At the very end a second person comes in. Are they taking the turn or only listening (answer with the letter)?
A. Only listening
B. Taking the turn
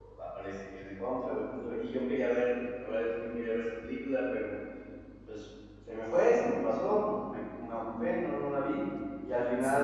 A